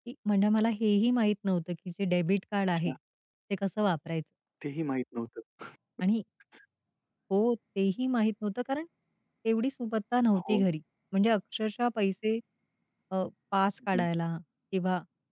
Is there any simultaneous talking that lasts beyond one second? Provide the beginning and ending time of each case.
none

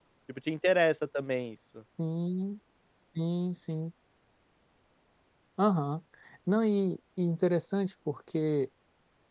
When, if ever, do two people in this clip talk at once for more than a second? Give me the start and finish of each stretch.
none

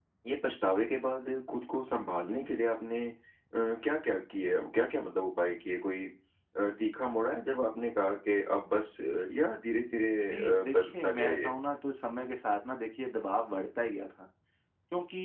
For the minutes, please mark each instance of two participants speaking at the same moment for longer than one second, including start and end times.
10.3-11.5

